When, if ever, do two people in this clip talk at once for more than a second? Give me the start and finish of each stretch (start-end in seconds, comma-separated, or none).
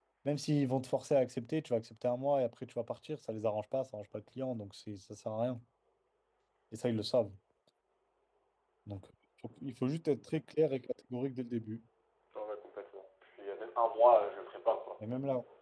none